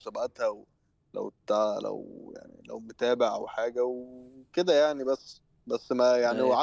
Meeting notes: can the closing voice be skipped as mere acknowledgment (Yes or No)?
Yes